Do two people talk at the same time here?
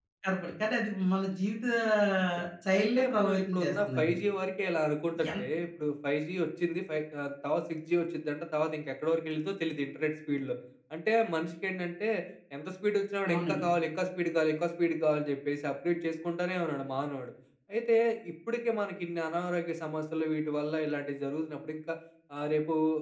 Yes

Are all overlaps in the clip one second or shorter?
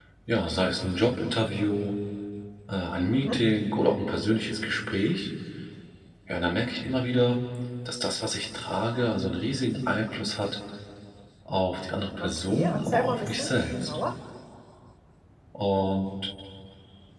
No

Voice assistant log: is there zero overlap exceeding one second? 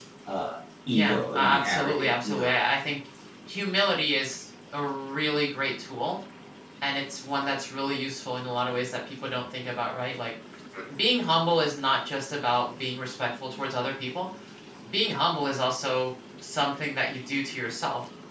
No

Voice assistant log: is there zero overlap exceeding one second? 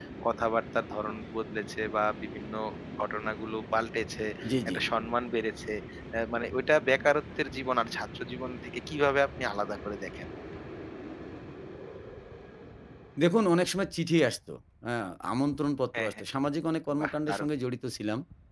Yes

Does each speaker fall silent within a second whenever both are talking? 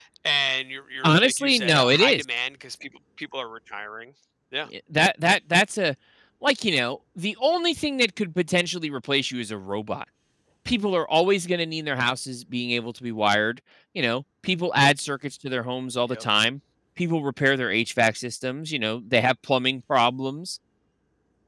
No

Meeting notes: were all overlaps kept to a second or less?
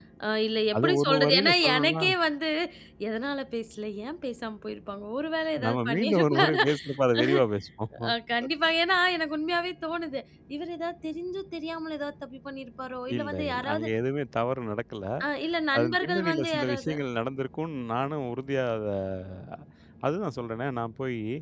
No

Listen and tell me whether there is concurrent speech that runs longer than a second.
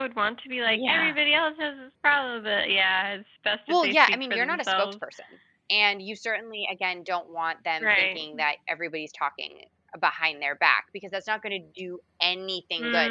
Yes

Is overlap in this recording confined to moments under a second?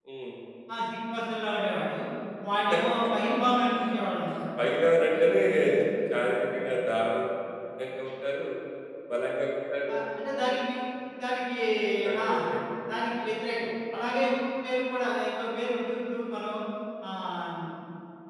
Yes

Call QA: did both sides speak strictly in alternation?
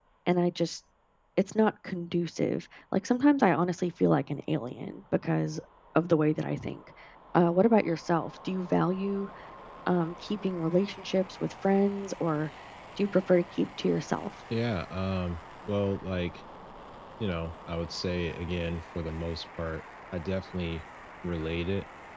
Yes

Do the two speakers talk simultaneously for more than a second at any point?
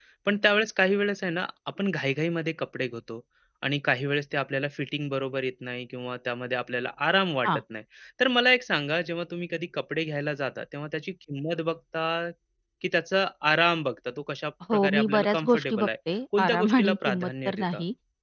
Yes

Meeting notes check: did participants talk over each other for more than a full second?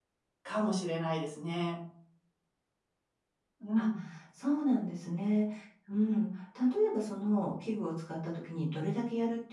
No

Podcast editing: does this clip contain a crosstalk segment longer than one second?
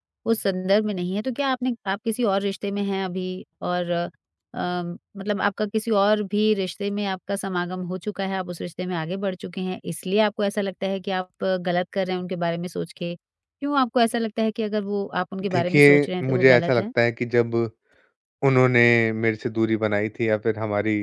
Yes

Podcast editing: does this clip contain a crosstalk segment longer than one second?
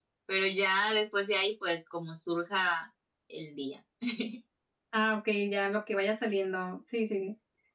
No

